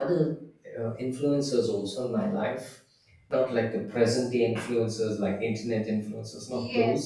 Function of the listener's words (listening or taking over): taking over